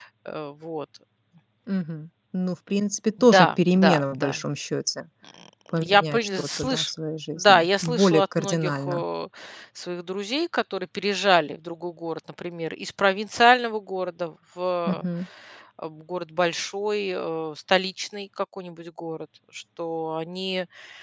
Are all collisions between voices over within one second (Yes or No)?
No